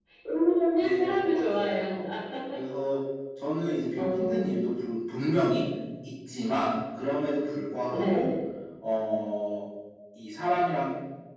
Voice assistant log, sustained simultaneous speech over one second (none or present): present